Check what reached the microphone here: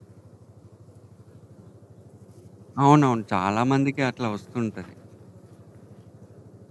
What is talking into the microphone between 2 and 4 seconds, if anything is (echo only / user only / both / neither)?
user only